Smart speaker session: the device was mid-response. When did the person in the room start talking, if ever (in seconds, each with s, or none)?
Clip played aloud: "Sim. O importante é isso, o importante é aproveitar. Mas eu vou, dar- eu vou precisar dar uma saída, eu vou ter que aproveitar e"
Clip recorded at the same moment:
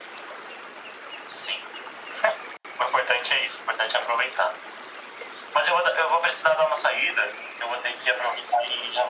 none